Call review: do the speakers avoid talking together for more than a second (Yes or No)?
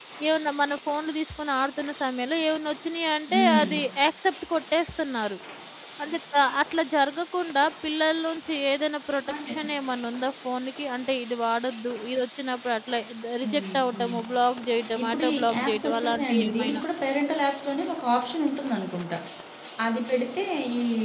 No